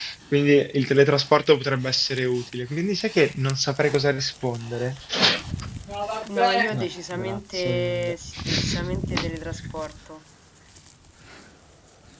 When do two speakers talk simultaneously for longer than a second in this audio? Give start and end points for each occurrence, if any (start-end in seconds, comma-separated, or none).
6.4-8.1